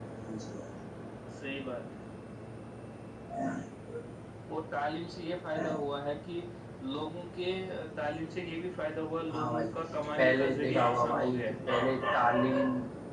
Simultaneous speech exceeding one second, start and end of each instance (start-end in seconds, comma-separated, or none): 10.2-11.4